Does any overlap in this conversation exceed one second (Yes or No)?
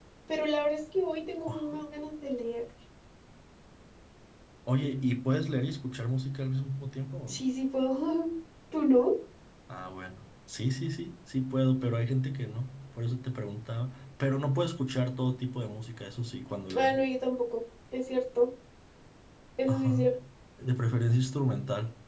No